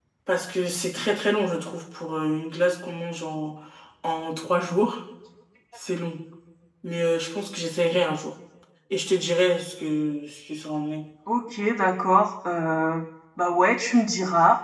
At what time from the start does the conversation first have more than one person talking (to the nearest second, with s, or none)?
none